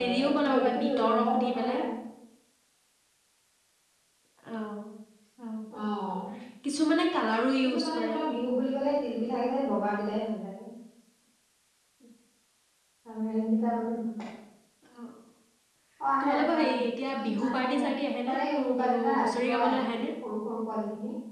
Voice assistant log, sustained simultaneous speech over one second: present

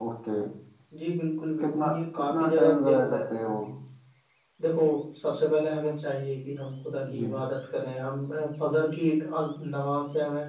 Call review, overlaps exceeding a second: present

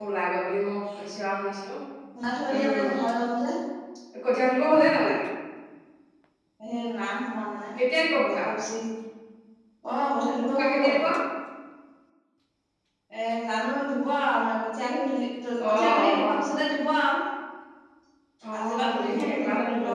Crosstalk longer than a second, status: present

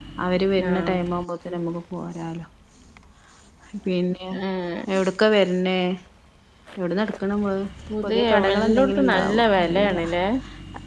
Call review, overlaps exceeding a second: present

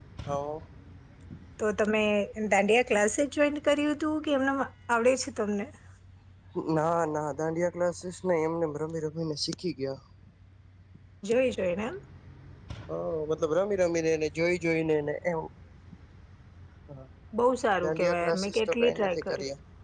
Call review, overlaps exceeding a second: present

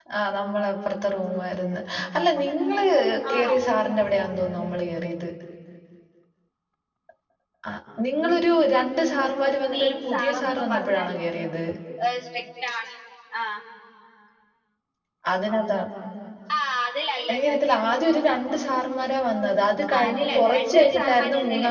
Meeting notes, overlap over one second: present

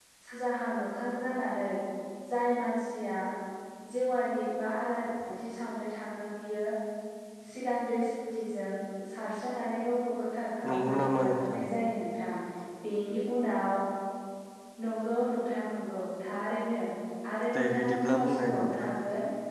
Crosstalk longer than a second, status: present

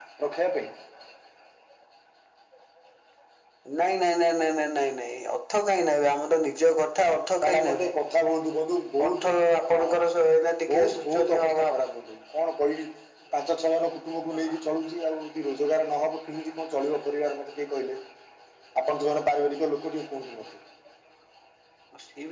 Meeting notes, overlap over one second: present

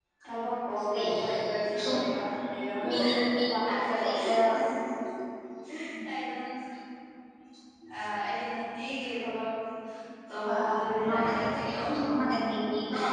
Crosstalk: present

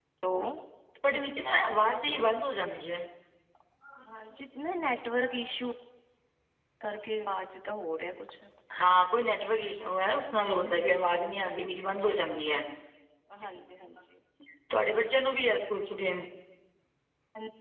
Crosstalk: none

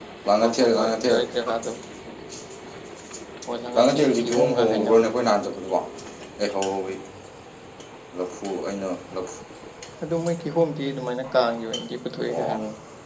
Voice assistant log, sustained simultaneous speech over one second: present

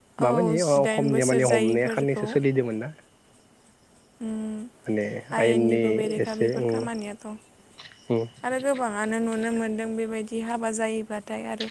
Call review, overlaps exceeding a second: present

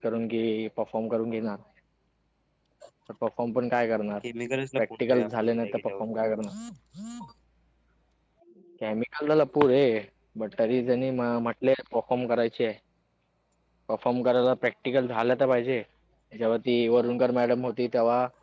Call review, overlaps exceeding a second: present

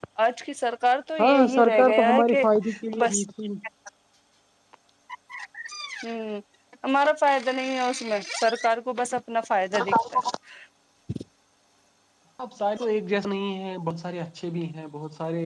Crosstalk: present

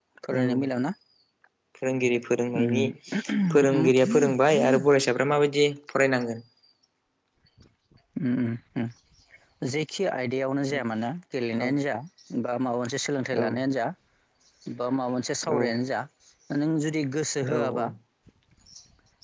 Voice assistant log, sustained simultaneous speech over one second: none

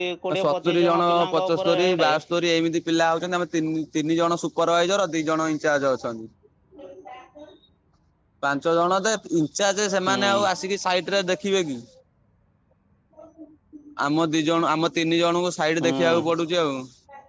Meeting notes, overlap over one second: present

